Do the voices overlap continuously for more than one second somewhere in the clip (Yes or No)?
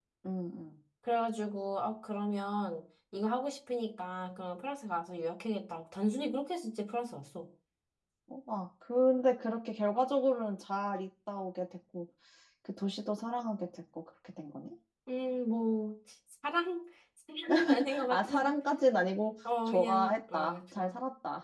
Yes